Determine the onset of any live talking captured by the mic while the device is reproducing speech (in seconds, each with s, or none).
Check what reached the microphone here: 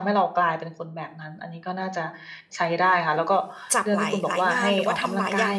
3.7 s